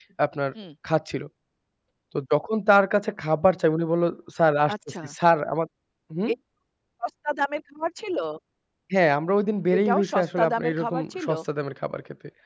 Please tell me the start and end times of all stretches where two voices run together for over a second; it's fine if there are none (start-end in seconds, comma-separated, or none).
9.8-11.3